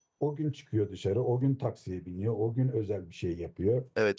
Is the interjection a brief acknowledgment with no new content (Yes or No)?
No